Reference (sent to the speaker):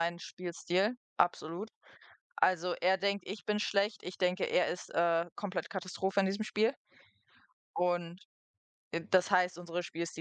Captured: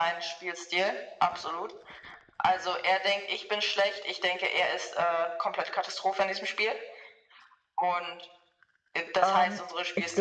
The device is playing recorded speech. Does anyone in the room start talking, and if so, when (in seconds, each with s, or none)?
9.2 s